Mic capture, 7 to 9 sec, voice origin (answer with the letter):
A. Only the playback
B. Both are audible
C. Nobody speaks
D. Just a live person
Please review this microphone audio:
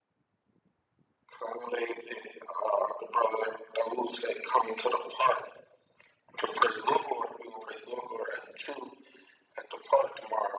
A